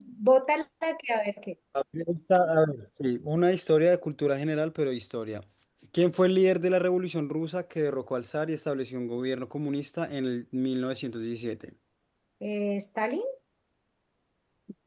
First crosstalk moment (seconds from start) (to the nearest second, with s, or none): none